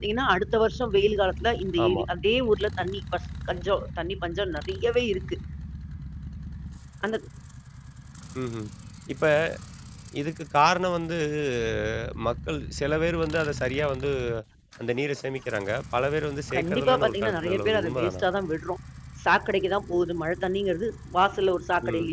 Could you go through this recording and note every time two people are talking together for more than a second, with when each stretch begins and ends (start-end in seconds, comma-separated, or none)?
16.5-18.2